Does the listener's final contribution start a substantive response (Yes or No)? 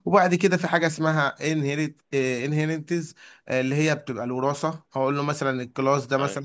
No